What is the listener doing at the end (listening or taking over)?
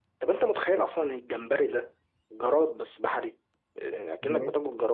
listening